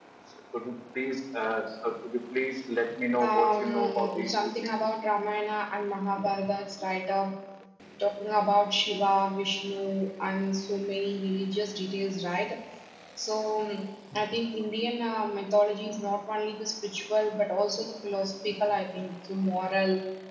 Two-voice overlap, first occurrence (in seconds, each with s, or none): 3.2 s